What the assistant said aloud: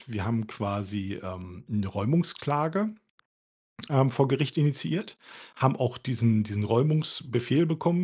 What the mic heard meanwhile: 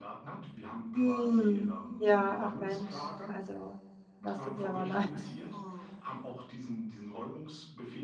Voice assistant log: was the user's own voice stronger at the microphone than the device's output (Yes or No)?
Yes